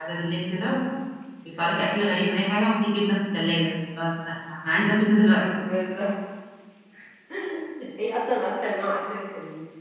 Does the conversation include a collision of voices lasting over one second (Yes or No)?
No